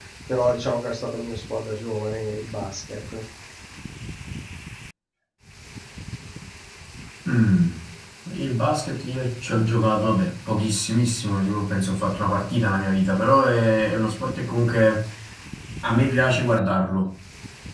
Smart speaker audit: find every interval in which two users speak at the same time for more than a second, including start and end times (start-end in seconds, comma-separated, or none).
none